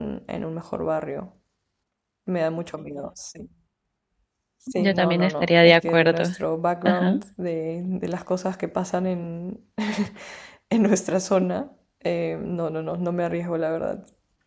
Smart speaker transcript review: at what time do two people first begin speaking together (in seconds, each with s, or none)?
4.7 s